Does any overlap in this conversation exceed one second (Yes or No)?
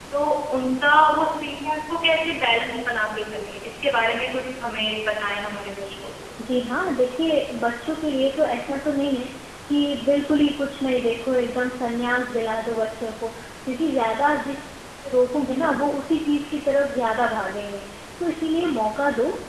No